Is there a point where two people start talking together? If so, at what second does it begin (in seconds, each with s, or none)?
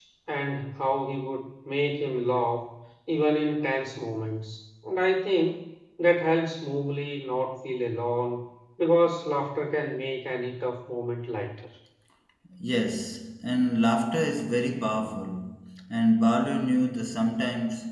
none